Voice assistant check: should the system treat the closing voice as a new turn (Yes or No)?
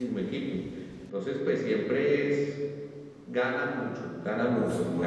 No